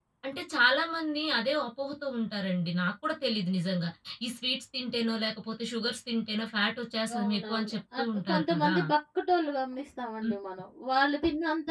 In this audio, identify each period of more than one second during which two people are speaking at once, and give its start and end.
7.2-8.8

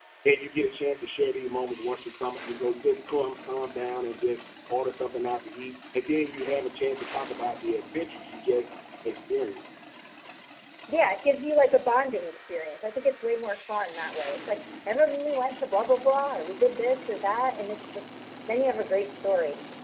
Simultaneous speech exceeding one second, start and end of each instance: none

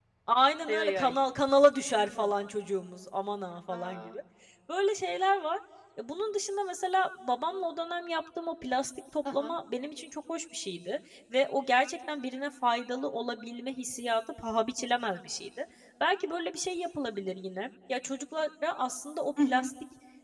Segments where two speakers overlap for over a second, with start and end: none

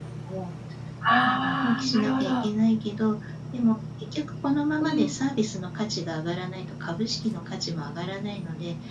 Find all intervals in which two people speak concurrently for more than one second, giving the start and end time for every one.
1.2-2.5

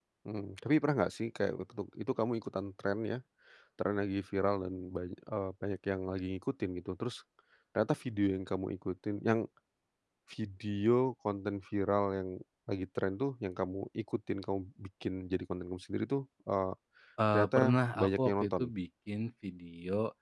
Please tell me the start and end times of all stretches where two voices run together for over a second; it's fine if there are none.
17.3-18.7

